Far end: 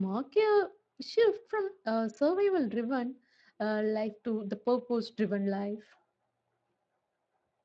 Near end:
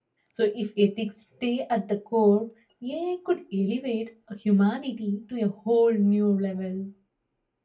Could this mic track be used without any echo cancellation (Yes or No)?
Yes